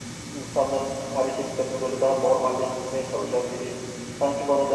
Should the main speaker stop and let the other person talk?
Yes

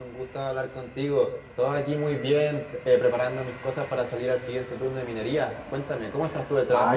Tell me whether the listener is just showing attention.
No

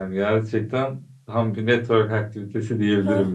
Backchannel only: No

